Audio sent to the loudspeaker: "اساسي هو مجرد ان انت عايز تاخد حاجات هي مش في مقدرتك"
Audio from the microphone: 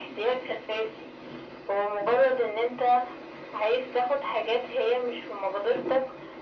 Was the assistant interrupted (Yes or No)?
No